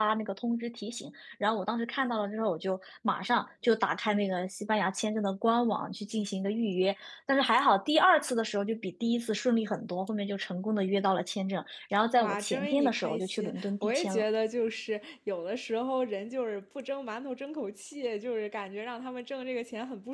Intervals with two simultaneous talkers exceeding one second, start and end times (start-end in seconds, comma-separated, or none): 12.2-14.2